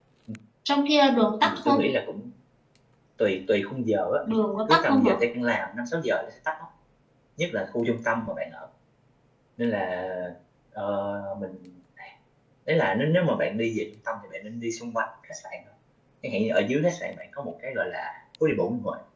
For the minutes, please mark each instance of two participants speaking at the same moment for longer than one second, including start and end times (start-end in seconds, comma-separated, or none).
none